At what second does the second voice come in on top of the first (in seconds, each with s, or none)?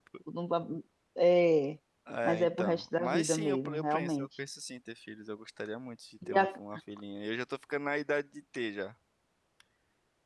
2.2 s